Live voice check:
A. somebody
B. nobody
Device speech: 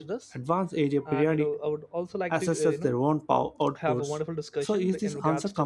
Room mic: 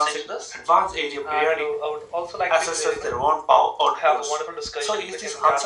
B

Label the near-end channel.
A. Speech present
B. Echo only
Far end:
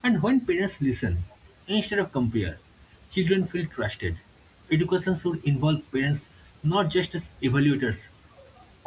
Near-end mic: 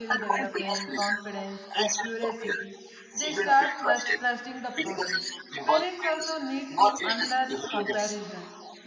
A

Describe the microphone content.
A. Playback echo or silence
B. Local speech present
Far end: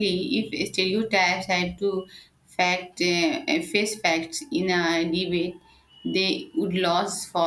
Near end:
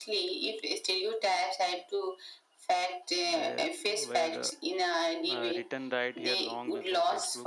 B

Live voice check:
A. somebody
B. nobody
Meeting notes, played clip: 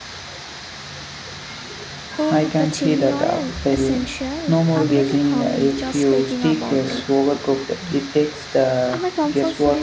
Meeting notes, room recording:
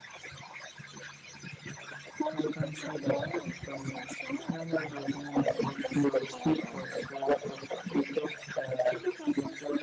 B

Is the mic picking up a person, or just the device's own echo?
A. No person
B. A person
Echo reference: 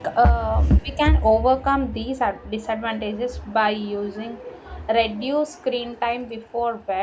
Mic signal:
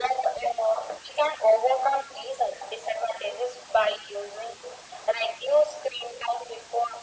A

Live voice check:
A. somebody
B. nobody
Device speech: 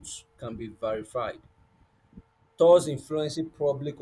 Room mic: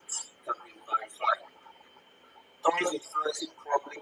B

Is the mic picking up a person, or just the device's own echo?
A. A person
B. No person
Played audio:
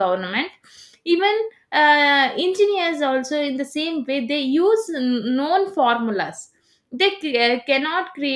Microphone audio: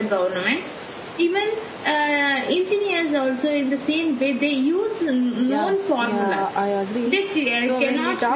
A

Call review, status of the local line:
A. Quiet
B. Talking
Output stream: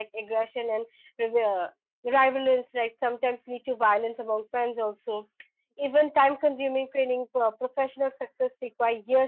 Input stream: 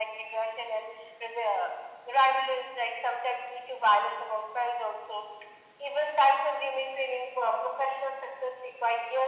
A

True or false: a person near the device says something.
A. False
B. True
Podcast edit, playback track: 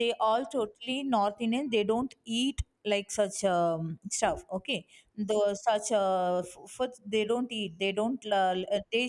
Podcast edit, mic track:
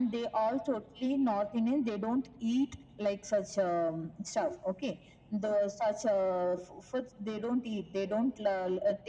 A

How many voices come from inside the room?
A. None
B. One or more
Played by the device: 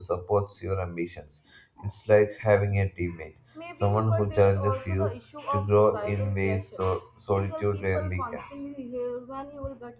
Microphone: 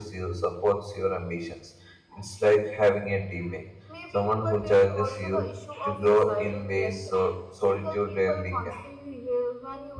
A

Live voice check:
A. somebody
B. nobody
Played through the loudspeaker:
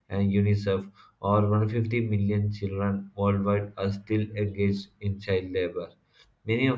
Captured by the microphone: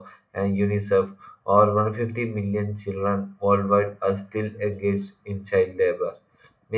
B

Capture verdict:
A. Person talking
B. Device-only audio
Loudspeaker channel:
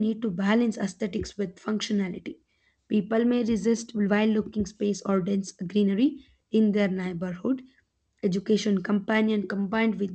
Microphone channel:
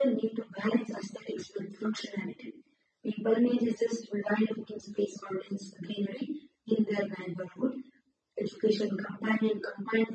B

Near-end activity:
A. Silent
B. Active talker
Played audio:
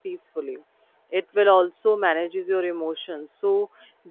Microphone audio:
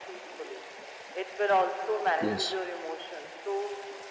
B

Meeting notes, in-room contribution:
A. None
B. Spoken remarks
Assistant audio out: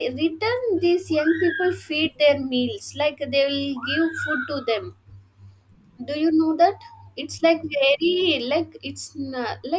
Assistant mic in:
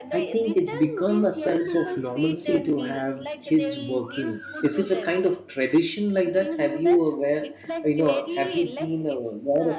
B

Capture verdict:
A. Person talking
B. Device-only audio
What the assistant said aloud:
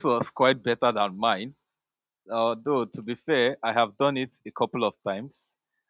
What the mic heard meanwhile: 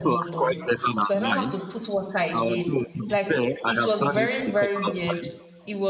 A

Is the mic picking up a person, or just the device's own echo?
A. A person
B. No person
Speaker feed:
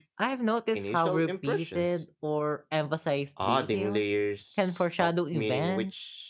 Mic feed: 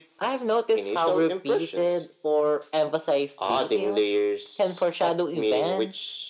B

